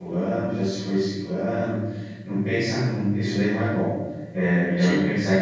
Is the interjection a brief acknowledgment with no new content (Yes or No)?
Yes